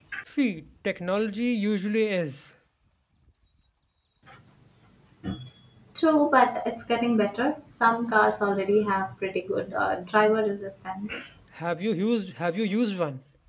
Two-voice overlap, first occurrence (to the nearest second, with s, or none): none